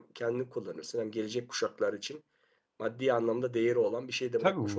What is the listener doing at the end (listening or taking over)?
taking over